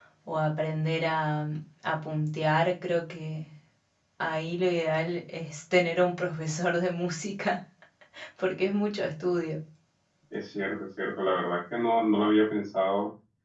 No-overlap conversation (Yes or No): Yes